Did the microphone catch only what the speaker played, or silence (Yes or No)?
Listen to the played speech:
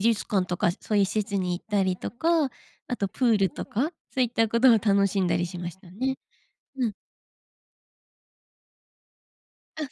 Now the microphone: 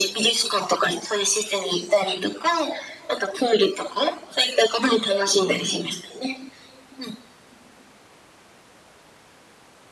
Yes